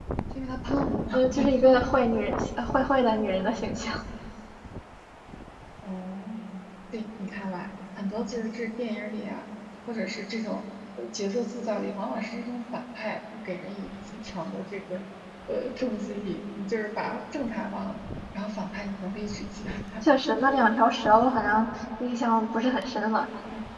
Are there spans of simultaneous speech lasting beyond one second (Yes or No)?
No